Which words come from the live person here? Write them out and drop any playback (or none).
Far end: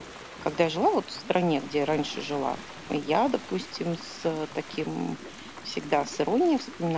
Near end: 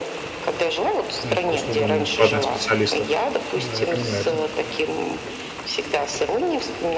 н к услугам платных специалистов. Да, я понимаю это.